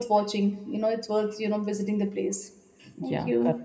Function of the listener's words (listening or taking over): taking over